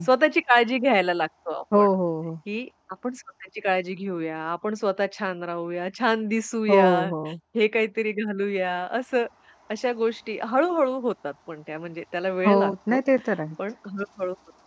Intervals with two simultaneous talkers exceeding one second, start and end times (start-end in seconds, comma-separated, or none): none